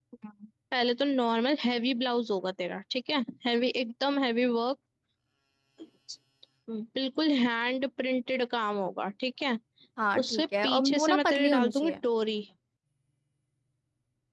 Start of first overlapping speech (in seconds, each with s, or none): 10.2 s